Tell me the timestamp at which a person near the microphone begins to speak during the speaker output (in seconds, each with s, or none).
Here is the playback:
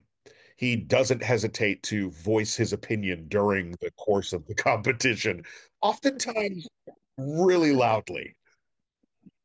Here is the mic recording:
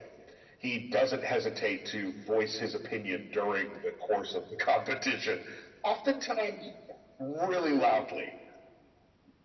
none